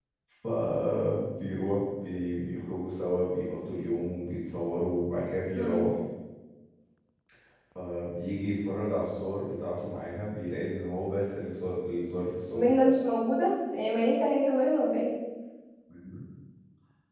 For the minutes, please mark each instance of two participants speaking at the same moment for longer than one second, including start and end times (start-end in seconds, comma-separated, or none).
none